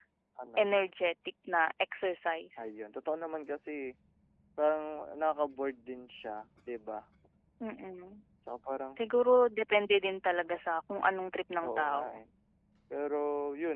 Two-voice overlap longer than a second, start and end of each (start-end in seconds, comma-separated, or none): none